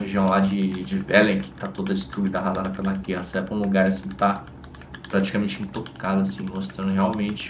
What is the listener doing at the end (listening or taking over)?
listening